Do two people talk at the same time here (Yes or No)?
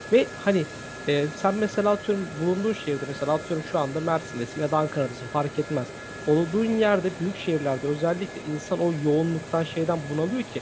No